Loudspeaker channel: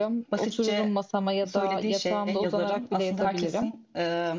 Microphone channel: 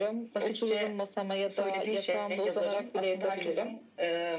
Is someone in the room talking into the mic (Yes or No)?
No